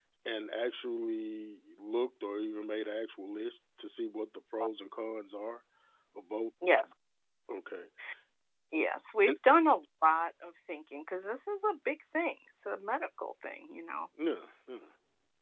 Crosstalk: none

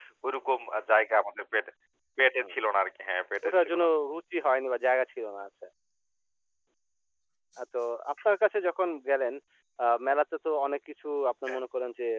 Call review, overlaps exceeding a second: none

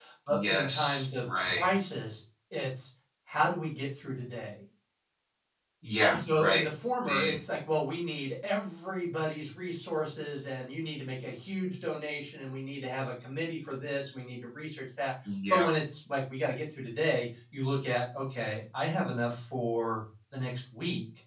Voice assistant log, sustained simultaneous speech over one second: present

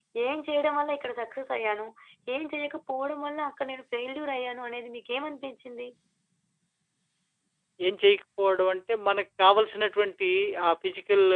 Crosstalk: none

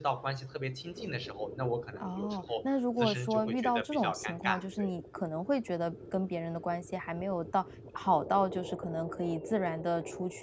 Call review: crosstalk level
present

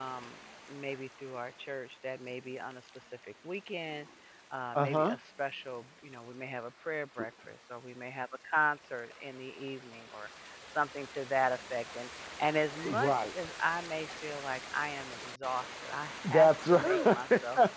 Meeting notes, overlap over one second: present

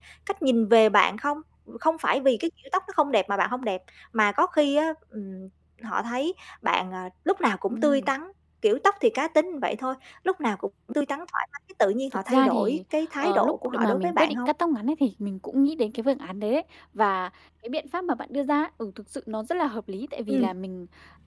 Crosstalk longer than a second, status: present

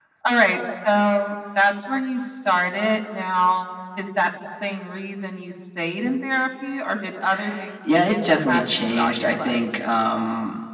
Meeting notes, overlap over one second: present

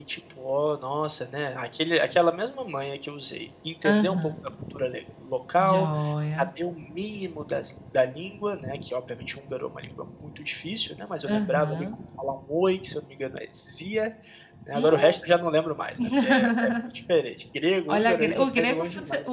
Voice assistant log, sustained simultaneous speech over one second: present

